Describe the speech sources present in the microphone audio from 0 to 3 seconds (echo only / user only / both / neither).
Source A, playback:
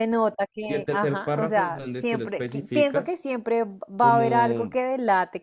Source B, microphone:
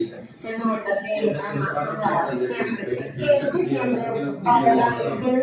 echo only